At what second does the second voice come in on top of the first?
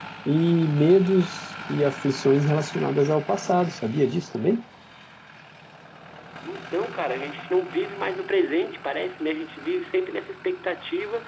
none

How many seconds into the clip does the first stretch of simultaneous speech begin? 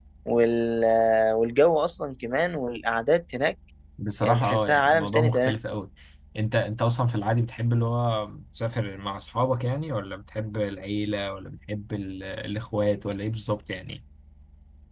4.2 s

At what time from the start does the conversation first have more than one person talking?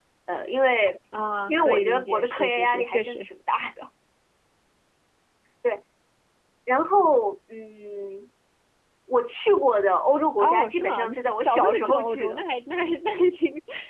1.5 s

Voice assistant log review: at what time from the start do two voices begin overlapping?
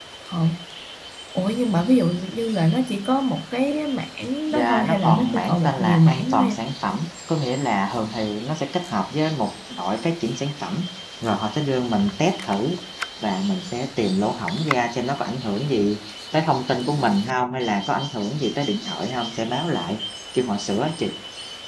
4.5 s

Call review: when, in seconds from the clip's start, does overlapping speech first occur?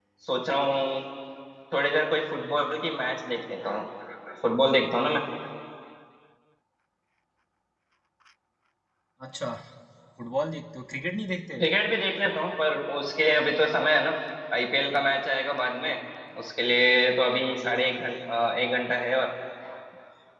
none

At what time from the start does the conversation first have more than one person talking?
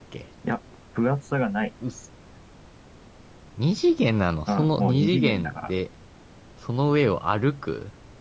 4.5 s

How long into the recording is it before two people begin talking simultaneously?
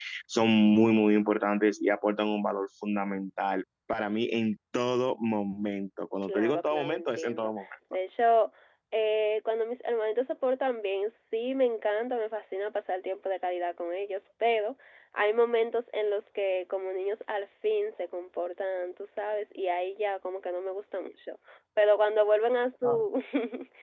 6.3 s

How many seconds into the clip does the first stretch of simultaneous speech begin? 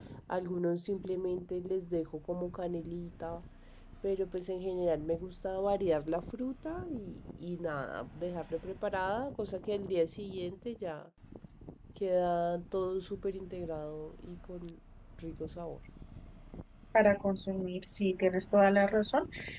none

